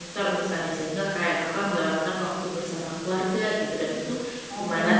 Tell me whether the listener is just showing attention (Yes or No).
No